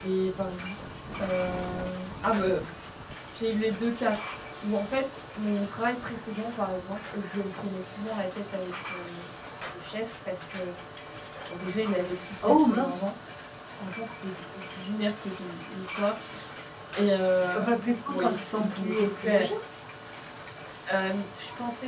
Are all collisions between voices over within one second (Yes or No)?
No